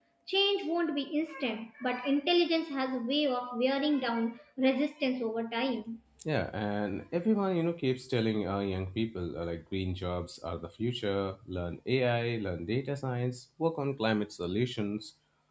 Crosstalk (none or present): none